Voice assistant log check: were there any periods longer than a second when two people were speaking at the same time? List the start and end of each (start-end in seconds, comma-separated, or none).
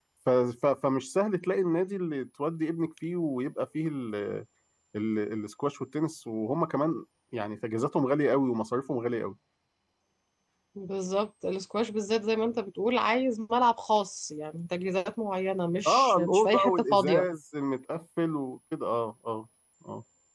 15.8-17.3